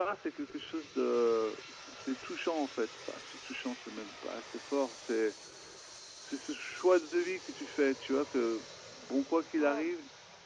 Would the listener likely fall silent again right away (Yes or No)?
Yes